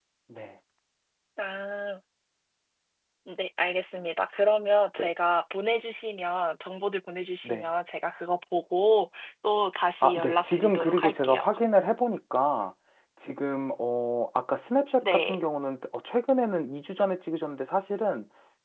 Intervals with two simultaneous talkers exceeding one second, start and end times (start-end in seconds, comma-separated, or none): 10.0-11.4